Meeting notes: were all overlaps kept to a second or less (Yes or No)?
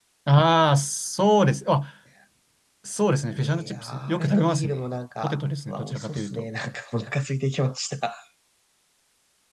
No